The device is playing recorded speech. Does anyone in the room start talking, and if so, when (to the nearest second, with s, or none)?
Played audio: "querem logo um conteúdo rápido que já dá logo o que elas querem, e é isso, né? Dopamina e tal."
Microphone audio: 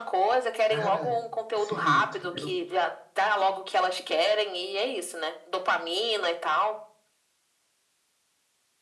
1 s